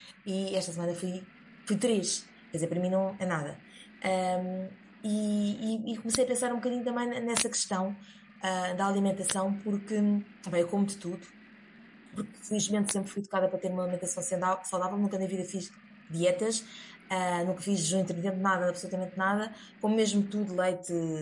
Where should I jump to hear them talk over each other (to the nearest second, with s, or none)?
none